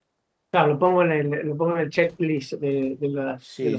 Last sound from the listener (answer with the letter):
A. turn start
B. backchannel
A